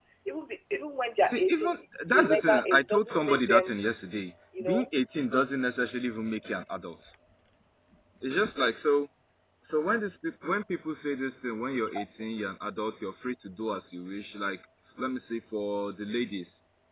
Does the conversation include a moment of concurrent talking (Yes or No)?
Yes